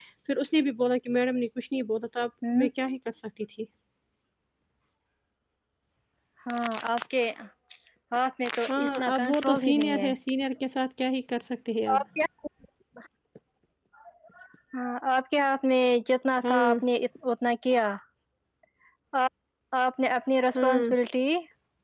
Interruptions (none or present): present